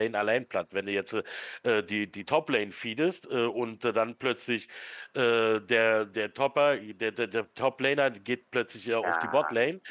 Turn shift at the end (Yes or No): No